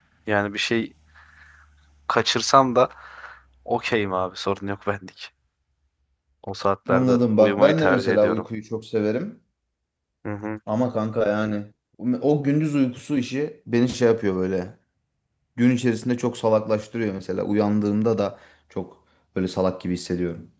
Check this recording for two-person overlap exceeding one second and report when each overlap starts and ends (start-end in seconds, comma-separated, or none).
6.9-8.4